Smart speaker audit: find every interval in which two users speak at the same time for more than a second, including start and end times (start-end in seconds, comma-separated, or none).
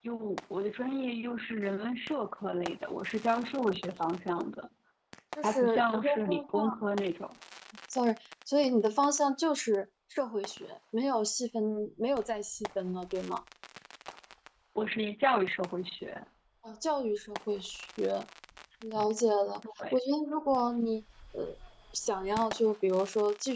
5.4-6.8